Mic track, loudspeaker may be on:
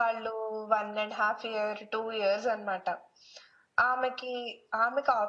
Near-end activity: none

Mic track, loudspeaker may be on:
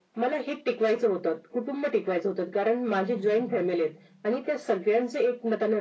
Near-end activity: present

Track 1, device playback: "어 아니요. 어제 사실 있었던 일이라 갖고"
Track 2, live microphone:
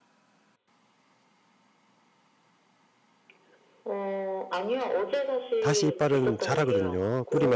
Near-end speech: present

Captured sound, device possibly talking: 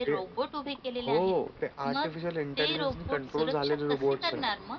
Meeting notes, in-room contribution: none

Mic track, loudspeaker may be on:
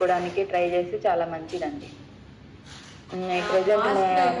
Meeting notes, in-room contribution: present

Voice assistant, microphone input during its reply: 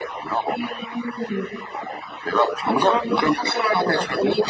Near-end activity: none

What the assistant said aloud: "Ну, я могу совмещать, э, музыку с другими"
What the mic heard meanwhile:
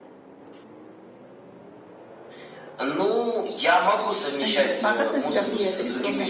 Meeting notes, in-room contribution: present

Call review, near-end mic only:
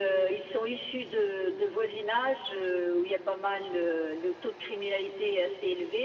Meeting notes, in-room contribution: none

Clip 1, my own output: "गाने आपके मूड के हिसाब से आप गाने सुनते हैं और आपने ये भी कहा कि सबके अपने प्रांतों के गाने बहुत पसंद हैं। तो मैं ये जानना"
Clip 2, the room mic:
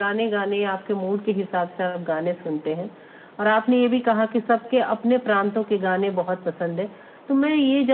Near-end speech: none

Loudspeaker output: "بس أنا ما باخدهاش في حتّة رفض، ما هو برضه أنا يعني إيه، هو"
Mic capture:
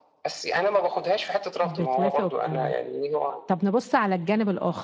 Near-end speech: present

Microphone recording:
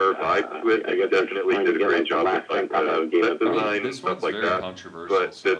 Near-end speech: present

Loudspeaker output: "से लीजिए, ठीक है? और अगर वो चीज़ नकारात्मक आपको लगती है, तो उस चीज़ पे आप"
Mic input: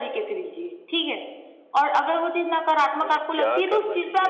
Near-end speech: present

